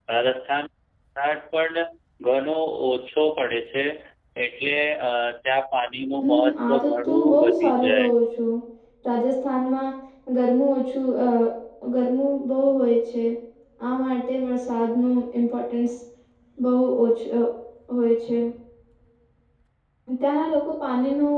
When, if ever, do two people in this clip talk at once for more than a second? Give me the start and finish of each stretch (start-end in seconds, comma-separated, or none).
6.2-8.1